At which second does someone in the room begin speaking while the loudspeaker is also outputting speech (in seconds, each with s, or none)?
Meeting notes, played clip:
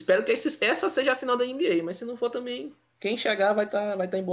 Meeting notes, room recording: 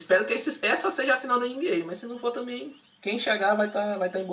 none